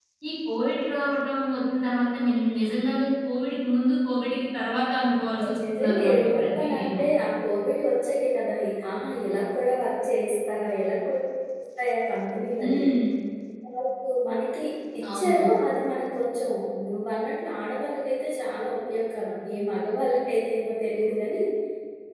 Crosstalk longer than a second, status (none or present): present